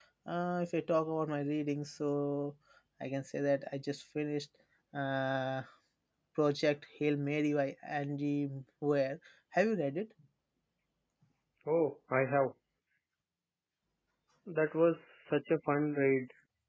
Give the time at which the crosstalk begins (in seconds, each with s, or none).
none